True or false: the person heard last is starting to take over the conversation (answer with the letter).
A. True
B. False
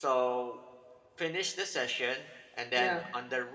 B